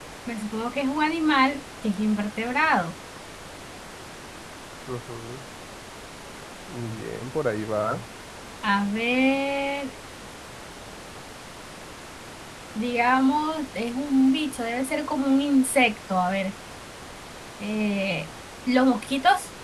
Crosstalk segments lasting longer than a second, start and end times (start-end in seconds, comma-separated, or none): none